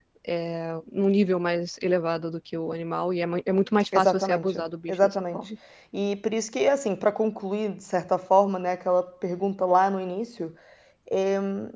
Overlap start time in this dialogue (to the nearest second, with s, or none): 4 s